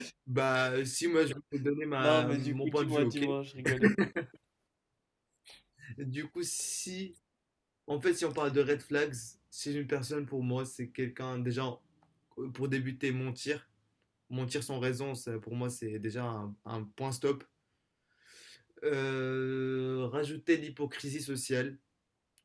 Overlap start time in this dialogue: 2.0 s

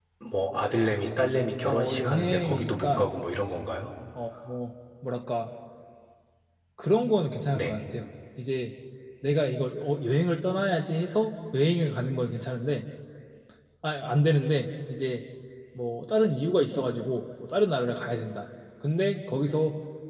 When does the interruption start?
1.6 s

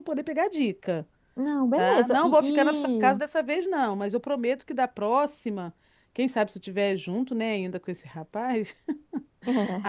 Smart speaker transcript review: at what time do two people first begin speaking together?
1.8 s

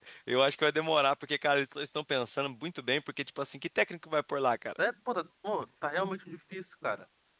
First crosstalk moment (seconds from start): none

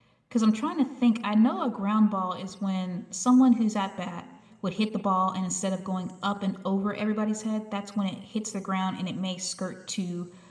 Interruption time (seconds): none

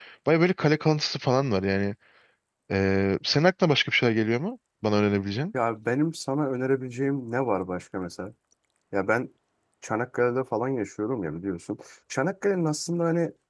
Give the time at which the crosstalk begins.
none

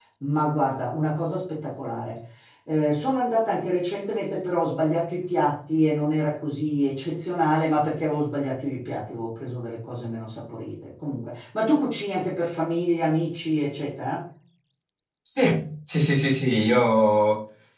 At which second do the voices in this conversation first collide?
none

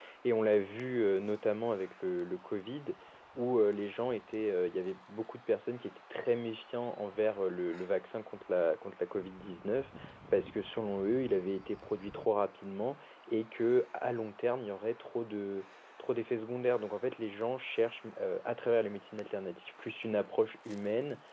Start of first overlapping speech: none

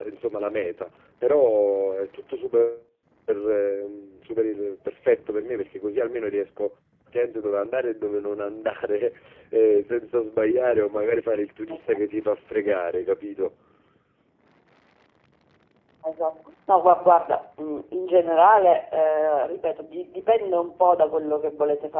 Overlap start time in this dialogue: none

